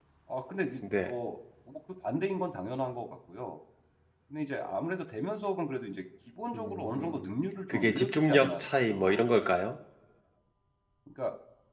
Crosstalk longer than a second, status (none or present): present